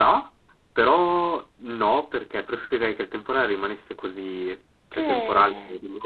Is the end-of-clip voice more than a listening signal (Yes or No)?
No